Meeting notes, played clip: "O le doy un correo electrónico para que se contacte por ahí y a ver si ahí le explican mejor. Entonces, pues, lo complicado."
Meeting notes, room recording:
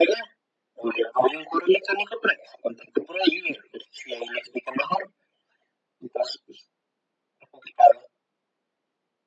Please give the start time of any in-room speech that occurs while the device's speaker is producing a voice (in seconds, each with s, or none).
none